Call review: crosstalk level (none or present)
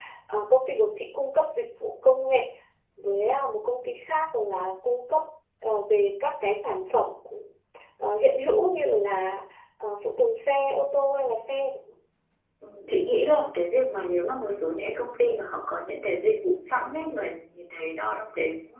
none